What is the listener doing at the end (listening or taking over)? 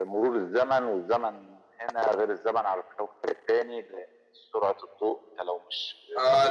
taking over